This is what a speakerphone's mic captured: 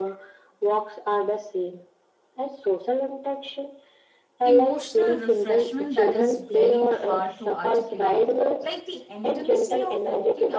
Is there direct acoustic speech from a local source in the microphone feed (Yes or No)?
Yes